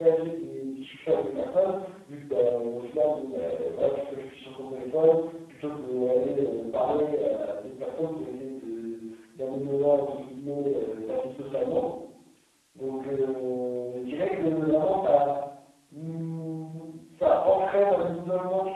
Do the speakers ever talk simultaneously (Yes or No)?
No